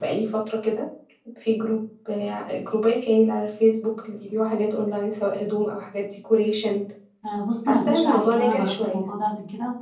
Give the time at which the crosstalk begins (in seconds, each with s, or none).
7.7 s